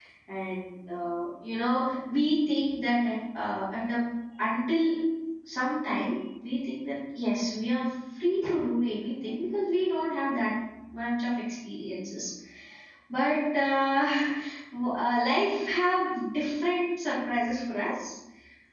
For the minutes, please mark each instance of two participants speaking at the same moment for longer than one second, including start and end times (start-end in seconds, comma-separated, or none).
none